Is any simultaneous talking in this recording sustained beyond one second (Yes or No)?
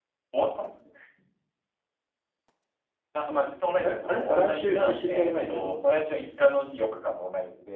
Yes